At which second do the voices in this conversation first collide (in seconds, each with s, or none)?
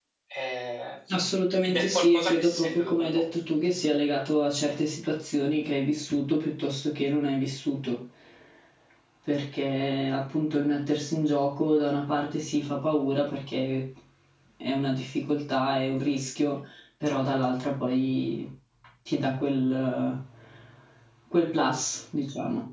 1.6 s